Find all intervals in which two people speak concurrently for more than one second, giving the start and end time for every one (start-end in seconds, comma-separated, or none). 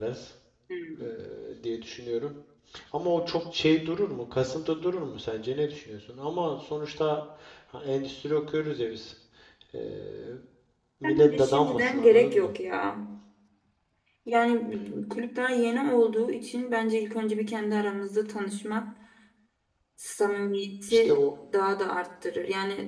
11.0-12.5